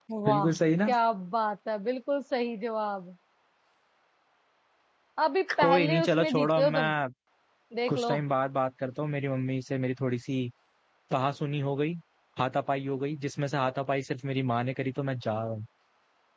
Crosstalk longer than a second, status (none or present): present